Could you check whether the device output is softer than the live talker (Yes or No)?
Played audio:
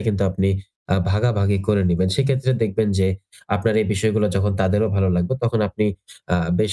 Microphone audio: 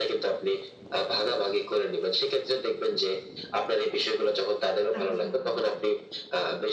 No